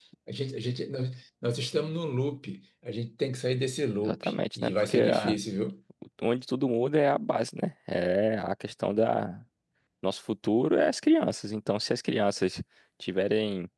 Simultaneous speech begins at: 4.0 s

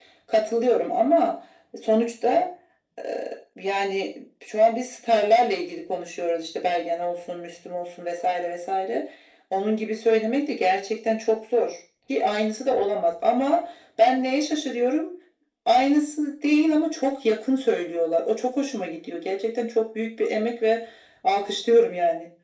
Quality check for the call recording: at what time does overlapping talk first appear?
none

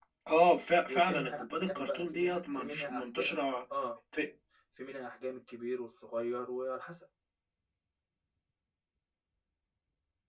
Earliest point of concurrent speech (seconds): 0.9 s

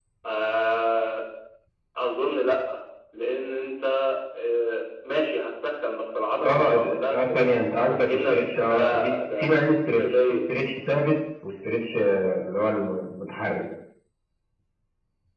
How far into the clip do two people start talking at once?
6.4 s

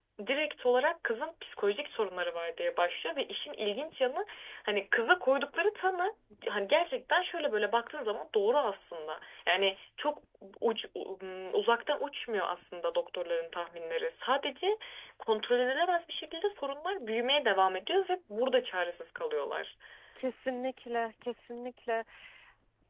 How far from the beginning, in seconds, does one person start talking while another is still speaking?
none

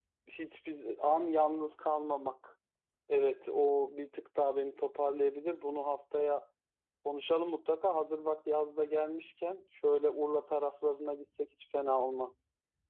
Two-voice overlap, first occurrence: none

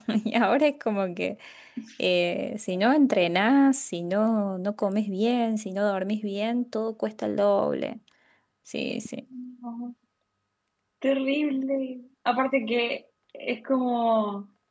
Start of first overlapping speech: none

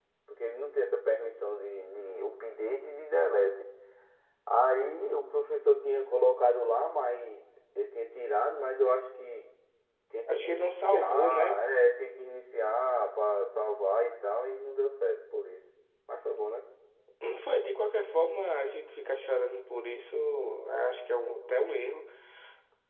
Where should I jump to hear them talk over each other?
10.3 s

